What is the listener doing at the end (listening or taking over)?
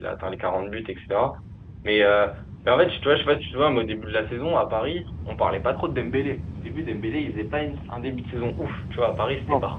listening